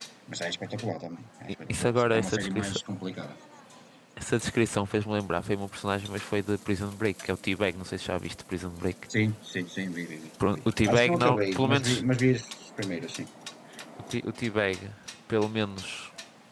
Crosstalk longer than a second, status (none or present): present